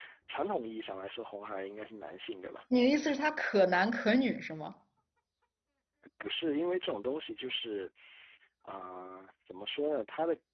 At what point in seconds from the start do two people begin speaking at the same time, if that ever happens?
none

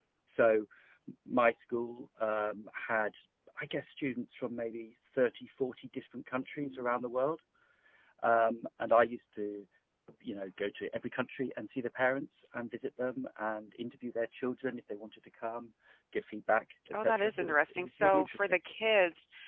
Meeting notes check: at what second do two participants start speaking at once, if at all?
16.9 s

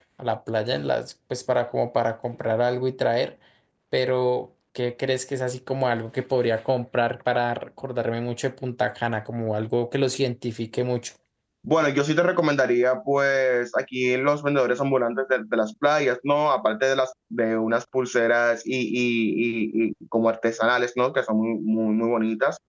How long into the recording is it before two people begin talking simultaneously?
none

